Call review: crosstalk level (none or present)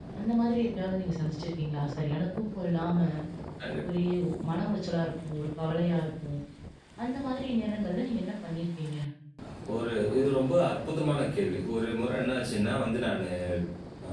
none